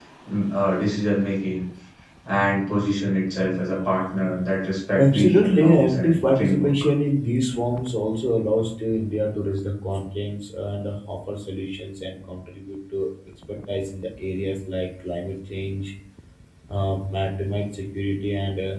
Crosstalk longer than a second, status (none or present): present